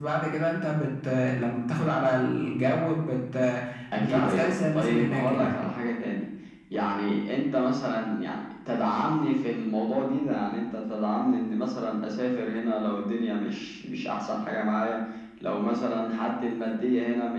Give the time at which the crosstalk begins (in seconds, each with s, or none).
4.0 s